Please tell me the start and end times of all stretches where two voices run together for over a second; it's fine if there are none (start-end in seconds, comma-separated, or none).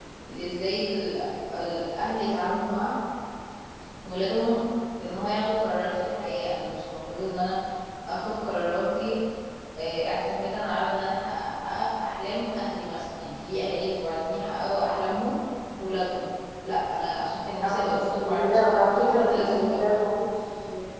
17.6-20.0